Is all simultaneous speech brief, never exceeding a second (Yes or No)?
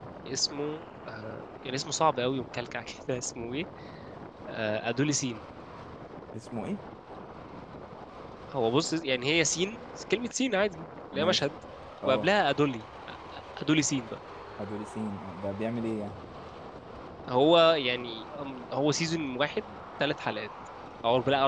Yes